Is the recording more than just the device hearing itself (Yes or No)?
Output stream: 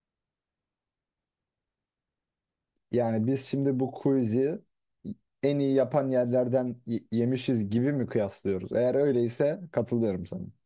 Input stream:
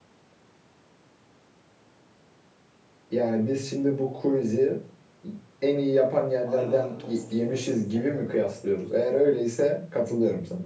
Yes